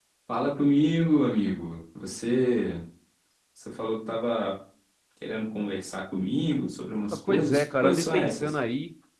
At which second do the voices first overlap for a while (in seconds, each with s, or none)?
7.3 s